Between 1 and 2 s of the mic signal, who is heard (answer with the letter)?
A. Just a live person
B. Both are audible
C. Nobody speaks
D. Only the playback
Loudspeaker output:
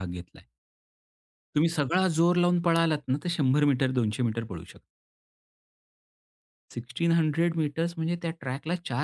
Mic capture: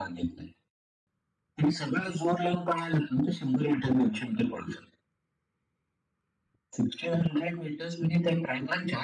D